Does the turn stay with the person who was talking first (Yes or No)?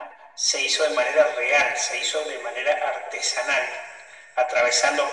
Yes